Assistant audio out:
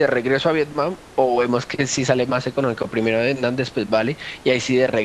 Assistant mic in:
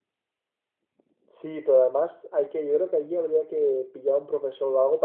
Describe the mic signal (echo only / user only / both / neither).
user only